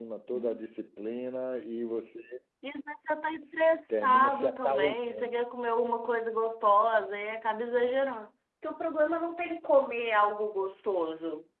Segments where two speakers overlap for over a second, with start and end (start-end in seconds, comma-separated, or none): 3.9-5.3